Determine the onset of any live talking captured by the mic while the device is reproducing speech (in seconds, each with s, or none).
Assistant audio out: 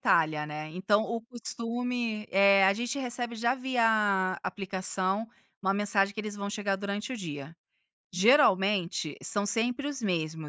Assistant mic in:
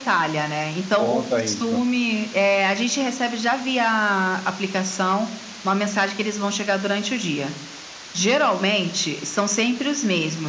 0.9 s